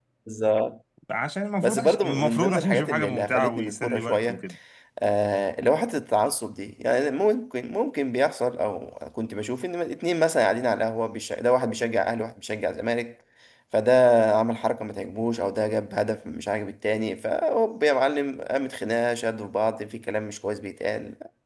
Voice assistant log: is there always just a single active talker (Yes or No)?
No